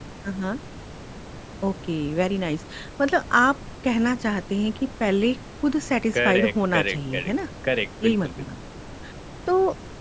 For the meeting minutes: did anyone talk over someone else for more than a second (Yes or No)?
Yes